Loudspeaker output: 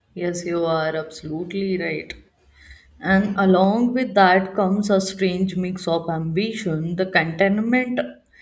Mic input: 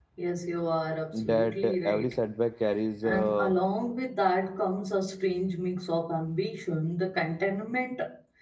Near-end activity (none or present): present